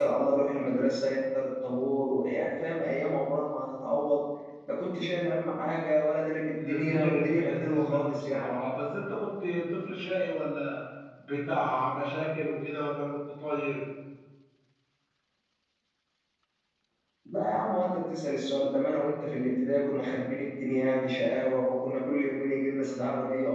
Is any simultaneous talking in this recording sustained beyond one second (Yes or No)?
Yes